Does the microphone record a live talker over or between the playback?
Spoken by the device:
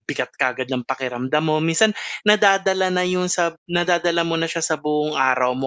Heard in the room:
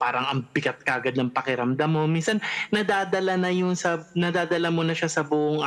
No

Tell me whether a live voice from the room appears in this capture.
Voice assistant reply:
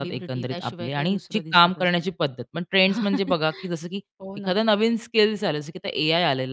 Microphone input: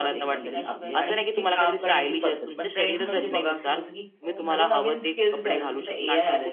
Yes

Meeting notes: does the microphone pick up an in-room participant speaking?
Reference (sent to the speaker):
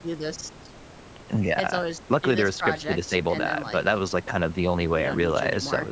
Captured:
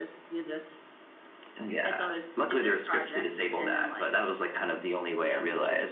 No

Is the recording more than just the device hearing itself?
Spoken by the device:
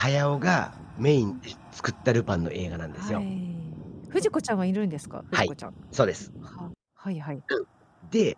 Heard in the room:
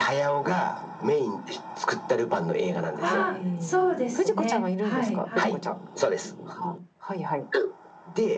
Yes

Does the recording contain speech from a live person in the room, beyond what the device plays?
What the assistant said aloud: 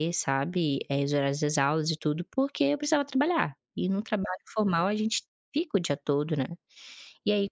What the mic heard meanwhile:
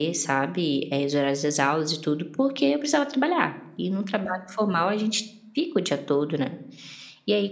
No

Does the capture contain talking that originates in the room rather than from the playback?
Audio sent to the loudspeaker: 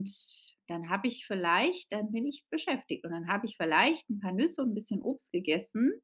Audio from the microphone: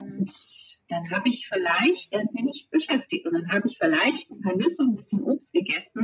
No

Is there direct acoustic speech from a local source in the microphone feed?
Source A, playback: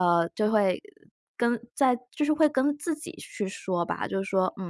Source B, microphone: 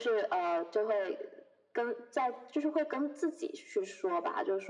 No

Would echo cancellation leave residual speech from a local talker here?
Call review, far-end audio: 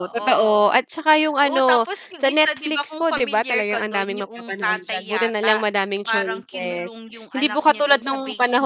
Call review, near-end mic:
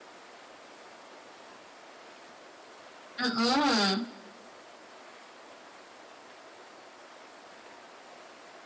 Yes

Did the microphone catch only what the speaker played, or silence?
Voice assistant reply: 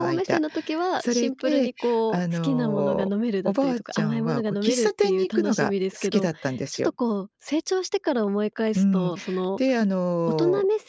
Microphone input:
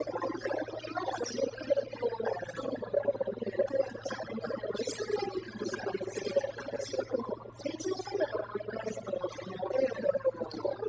Yes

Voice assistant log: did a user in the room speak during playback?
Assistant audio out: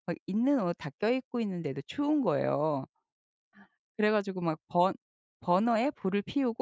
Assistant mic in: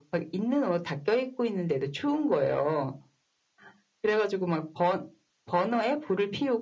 No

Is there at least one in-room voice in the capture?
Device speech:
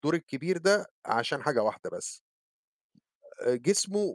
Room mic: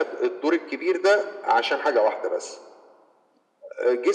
No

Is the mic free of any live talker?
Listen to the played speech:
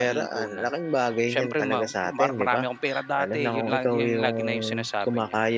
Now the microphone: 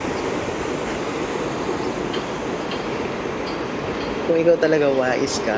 No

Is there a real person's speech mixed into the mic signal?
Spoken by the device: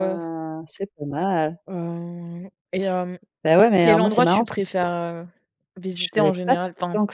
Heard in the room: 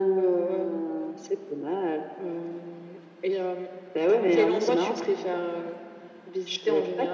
Yes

